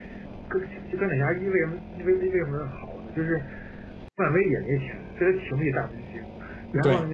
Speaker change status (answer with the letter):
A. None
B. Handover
A